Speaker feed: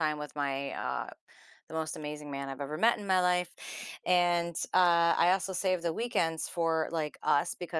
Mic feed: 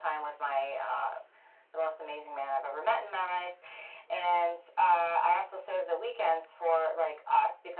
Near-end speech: none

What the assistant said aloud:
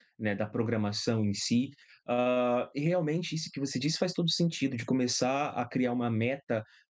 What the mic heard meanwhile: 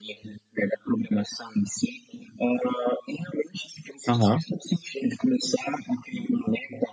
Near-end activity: present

